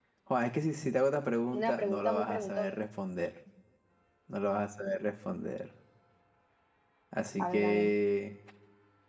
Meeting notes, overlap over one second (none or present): present